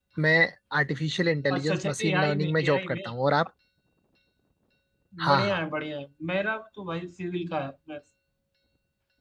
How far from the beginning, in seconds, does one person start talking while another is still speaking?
2 s

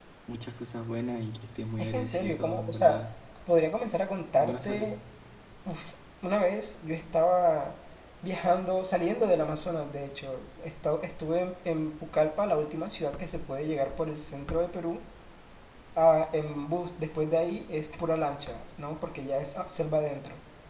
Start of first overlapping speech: 2 s

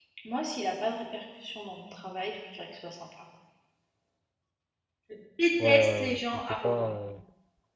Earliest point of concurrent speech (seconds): 6 s

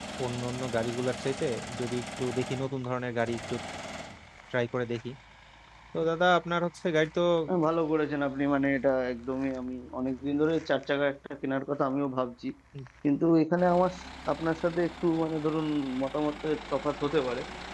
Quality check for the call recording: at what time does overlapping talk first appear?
none

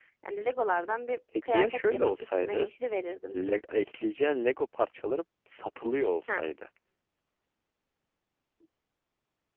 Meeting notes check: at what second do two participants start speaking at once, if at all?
1 s

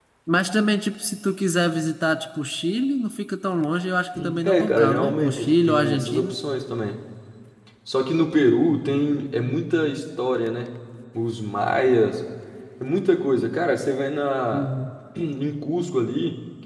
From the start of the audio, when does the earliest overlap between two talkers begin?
4 s

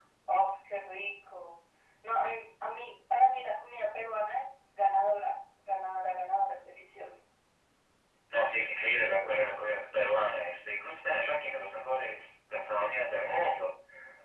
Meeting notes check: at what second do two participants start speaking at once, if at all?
none

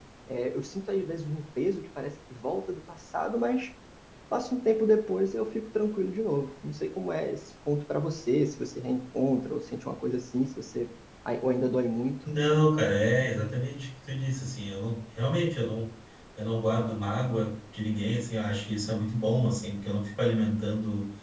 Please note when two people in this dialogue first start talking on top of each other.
none

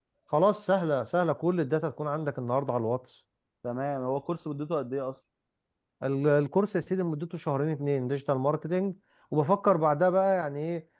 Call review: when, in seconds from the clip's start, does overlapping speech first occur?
none

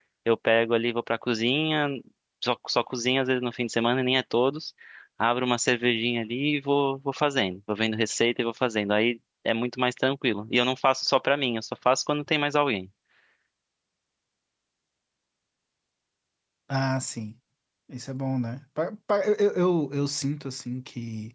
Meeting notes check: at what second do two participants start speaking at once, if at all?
none

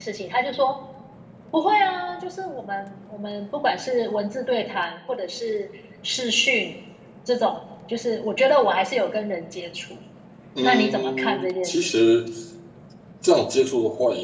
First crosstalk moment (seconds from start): 11 s

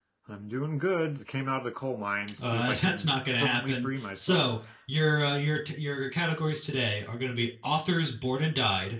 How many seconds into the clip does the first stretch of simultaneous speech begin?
2 s

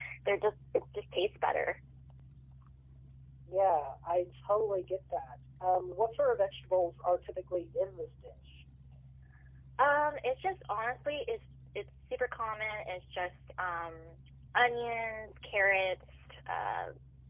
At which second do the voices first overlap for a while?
none

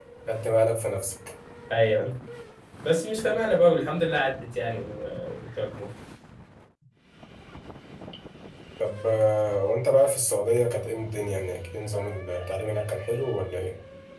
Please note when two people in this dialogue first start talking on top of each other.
none

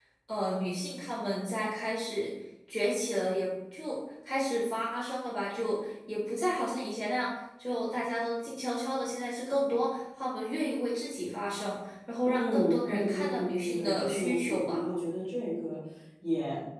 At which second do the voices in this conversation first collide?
12 s

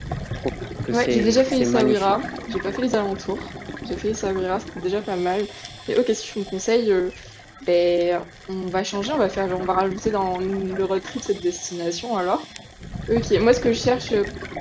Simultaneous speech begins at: 1 s

